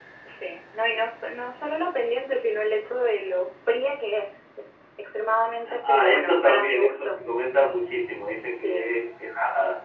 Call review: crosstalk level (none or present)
present